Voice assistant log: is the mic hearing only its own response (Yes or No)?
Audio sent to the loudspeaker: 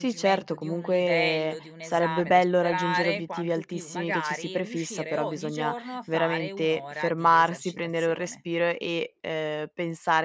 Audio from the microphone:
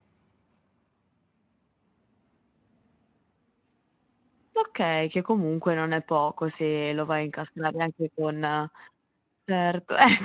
No